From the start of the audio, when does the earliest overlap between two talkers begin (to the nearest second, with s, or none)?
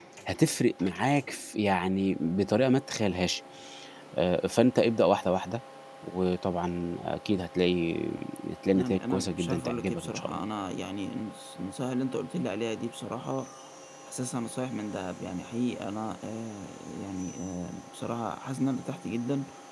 9 s